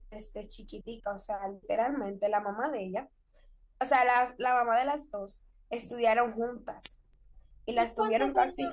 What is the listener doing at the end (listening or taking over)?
taking over